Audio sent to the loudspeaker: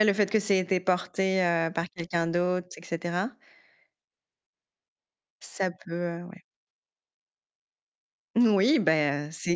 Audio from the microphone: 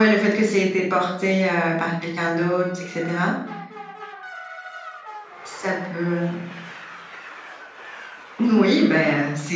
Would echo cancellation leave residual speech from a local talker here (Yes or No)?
No